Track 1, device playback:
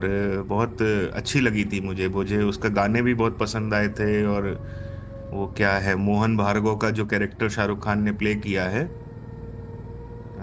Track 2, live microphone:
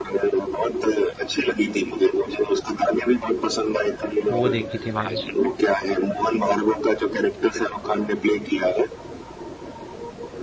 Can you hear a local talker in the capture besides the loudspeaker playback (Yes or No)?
Yes